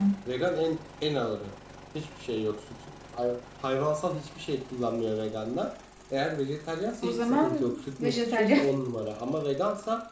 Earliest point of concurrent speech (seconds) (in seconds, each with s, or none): 7.0 s